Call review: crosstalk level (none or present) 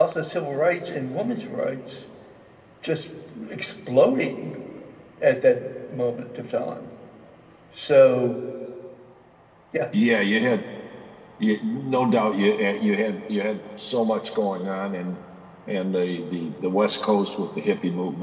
none